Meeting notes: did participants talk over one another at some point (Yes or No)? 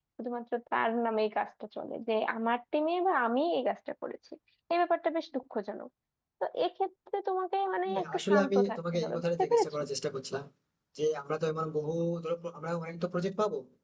Yes